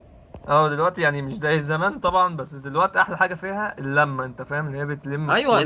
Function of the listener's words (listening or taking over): taking over